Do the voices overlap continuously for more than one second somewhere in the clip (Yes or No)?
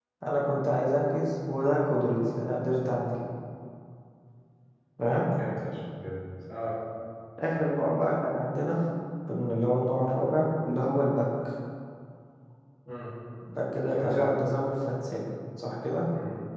No